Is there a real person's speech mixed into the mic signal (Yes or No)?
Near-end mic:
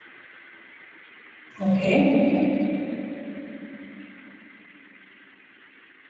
Yes